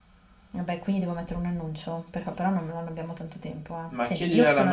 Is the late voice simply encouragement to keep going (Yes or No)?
No